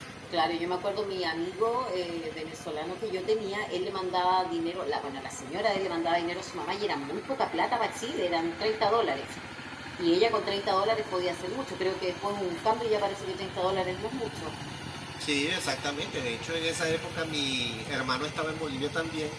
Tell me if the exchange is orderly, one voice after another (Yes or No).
Yes